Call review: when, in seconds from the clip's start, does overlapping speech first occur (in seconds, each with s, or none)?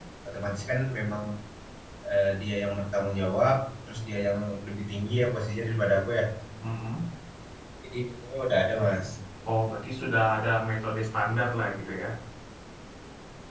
none